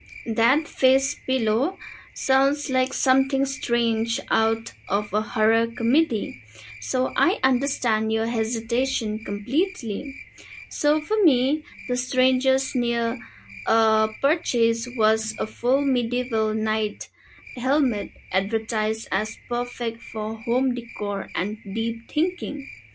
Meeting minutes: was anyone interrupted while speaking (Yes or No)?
No